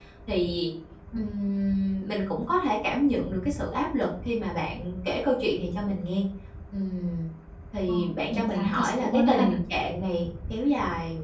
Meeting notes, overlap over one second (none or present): present